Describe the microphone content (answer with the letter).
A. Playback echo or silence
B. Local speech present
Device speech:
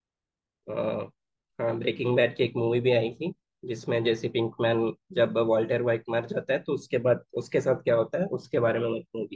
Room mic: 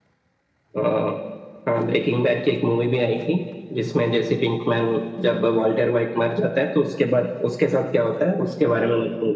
A